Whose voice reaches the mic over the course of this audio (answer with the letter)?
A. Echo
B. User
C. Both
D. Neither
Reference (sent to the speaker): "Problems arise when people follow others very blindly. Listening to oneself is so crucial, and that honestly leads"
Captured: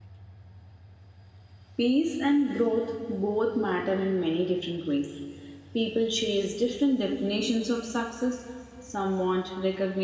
B